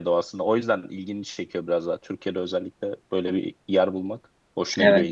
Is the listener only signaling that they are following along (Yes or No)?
No